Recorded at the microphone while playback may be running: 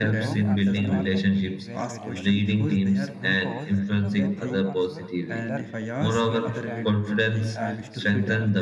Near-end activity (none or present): present